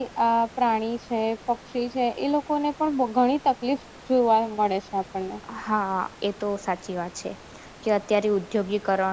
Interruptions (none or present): none